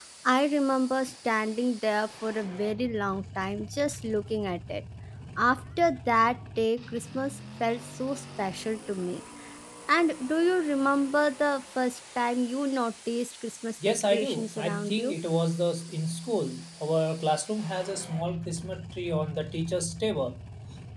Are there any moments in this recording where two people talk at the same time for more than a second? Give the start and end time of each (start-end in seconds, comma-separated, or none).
13.9-15.2